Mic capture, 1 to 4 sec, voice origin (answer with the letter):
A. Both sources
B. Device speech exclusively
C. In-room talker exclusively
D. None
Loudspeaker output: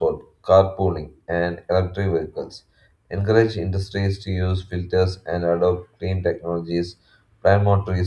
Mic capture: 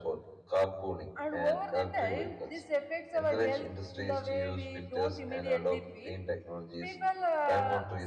A